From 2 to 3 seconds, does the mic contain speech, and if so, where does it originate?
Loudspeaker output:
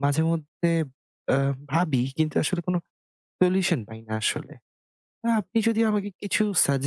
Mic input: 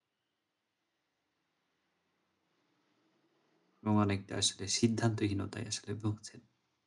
neither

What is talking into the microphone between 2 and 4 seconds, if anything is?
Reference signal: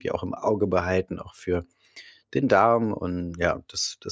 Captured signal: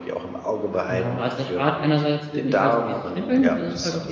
both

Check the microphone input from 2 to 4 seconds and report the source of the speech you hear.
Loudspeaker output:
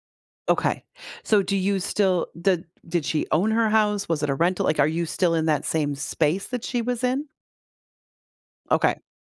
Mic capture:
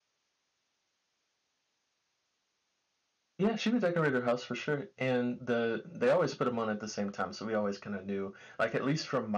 user only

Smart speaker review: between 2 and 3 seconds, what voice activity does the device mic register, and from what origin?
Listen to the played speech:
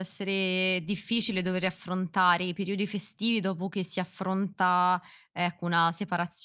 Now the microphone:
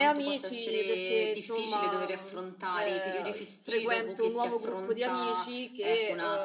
both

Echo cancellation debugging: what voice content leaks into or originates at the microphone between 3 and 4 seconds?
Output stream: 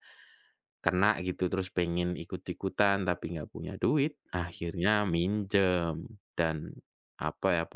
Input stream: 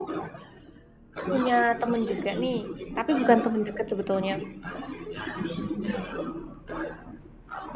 both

